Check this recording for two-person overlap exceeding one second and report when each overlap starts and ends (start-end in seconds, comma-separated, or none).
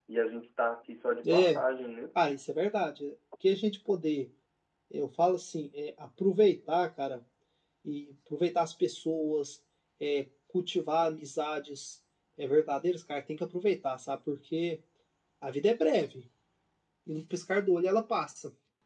none